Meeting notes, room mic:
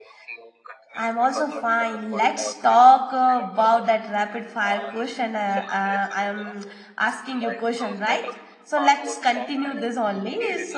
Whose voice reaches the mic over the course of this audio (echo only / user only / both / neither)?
both